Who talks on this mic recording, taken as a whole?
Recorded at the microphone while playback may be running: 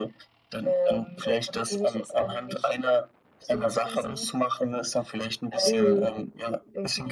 both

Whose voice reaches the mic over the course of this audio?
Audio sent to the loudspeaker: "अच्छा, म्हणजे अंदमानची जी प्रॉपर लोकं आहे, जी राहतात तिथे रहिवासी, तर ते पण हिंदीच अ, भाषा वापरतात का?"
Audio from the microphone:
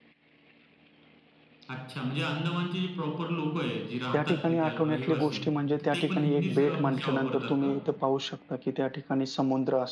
both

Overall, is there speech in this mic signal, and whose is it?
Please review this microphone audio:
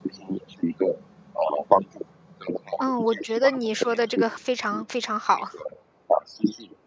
both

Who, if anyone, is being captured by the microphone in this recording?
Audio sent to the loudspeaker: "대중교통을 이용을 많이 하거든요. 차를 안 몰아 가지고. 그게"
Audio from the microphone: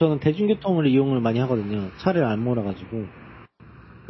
echo only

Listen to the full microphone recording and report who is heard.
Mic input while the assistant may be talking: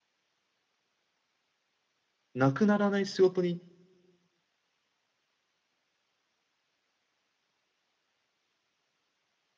user only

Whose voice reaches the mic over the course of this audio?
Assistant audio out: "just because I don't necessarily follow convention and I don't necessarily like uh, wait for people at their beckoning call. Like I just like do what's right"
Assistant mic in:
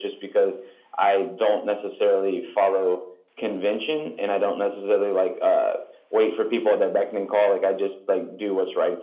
echo only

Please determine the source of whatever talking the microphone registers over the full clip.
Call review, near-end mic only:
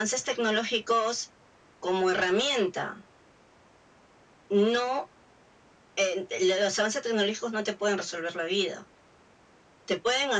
echo only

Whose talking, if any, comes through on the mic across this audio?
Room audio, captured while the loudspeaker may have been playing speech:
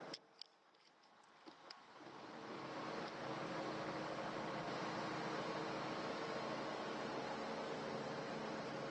neither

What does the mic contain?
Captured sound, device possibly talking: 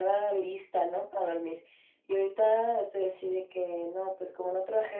echo only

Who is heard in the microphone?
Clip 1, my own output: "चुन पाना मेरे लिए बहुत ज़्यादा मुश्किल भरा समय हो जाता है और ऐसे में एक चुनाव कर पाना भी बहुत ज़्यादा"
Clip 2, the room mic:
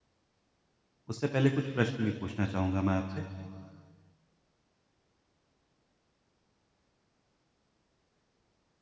user only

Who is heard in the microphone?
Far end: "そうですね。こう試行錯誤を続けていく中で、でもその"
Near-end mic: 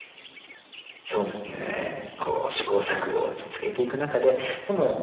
echo only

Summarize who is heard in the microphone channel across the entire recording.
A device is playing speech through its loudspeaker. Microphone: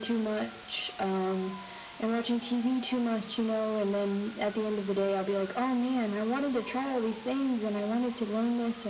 echo only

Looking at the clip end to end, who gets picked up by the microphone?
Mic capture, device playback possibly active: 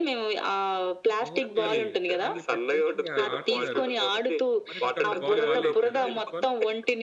both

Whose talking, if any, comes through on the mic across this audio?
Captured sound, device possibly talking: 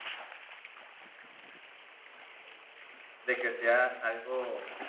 user only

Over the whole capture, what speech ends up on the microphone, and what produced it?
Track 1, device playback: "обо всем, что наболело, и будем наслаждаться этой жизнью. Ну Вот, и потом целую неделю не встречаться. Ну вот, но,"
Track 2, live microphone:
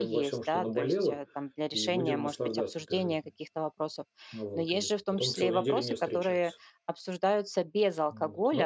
both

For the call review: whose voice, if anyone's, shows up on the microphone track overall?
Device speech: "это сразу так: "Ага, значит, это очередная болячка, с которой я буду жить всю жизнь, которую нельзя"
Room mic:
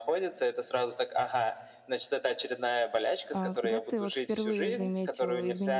both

